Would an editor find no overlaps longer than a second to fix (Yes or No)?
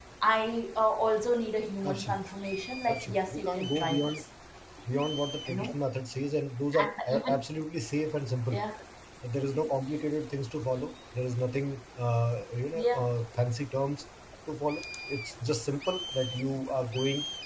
No